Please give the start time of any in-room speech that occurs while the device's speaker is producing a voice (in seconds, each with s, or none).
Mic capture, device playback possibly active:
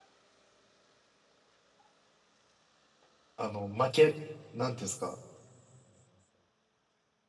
3.4 s